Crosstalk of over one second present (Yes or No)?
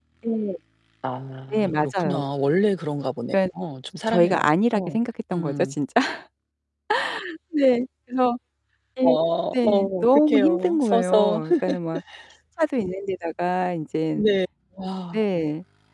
Yes